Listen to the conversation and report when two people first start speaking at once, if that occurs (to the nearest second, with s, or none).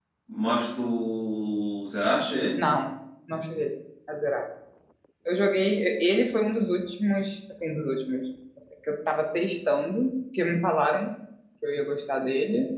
none